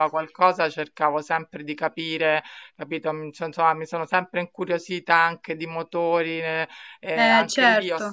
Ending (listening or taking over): listening